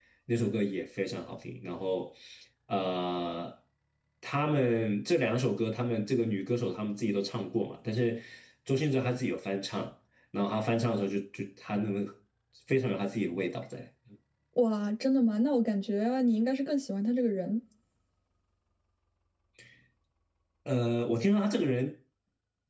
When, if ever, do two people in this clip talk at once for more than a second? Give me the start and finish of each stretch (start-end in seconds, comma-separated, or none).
none